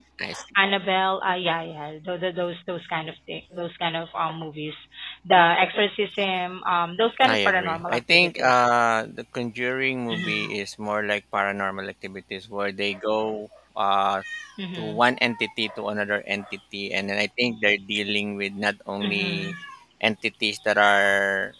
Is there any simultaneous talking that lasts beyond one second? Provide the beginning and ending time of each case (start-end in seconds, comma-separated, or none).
7.3-8.6